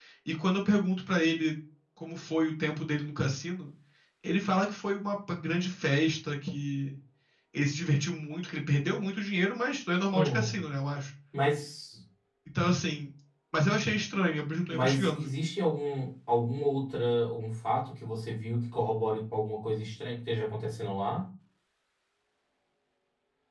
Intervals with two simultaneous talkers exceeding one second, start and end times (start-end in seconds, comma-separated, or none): none